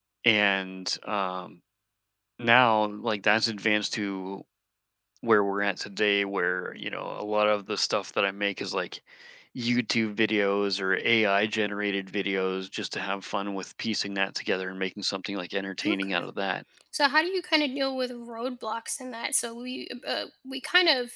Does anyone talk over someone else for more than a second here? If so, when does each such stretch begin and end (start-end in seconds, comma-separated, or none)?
none